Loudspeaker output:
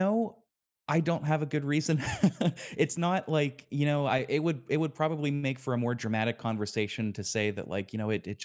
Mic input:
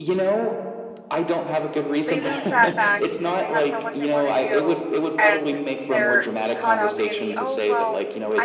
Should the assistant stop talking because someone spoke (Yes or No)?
Yes